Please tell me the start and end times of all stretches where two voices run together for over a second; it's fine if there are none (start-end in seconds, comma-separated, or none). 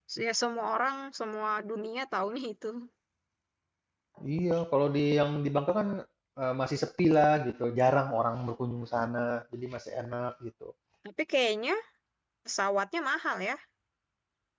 none